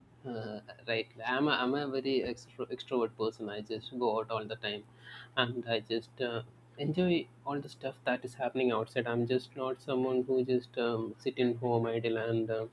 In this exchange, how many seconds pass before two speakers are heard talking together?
none

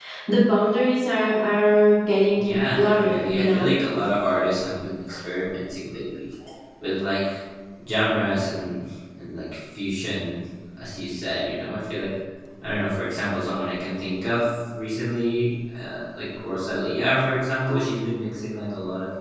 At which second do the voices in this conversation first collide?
2.4 s

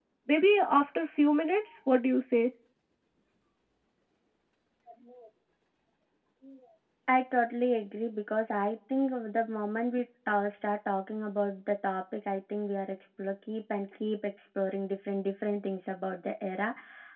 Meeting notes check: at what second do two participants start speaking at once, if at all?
none

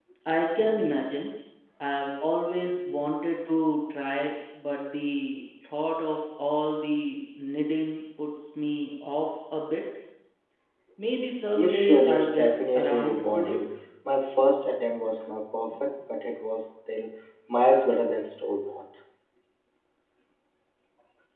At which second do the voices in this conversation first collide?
11.6 s

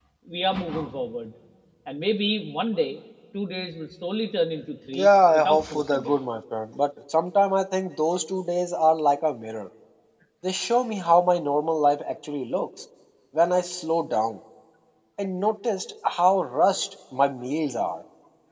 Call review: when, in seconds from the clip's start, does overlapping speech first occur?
4.9 s

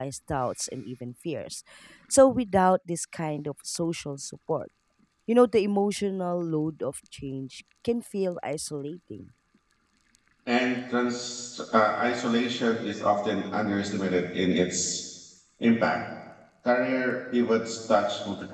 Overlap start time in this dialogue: none

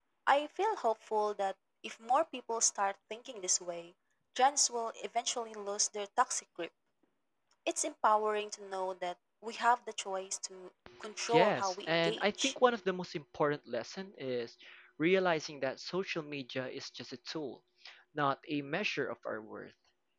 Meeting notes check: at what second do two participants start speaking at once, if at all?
11.3 s

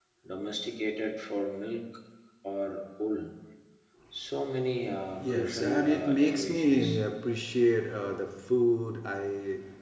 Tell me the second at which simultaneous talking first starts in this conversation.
5.2 s

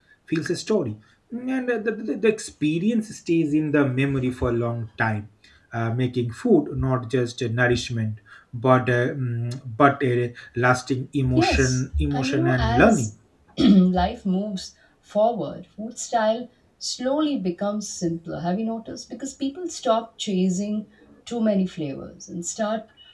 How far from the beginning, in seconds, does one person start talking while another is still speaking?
11.2 s

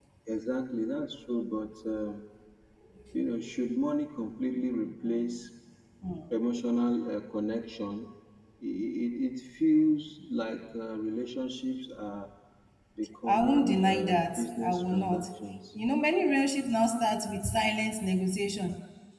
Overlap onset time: 13.3 s

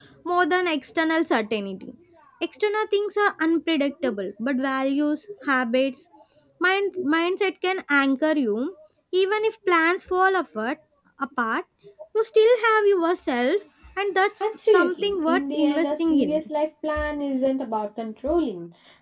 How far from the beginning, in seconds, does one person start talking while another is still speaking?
14.7 s

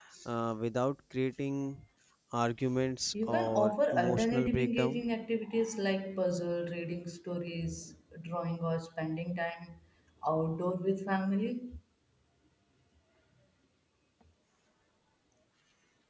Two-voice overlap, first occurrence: 3.2 s

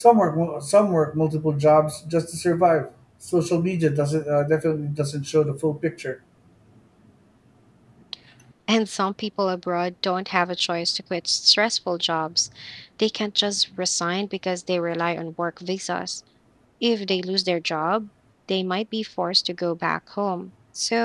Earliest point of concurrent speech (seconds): none

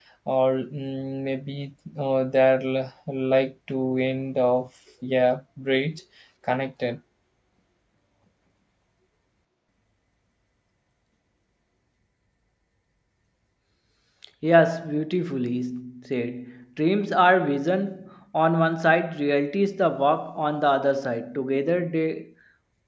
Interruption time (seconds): none

